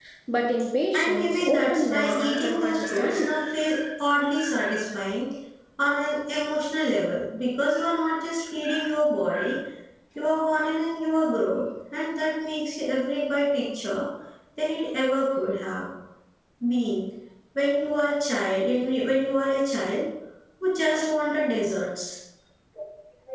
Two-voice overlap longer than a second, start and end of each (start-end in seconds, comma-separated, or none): 0.9-3.3